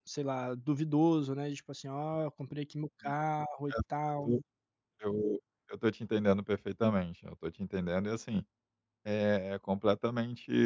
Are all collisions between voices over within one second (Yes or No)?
Yes